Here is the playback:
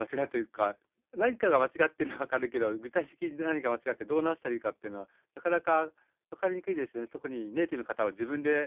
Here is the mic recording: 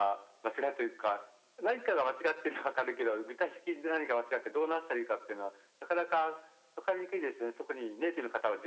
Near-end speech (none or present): none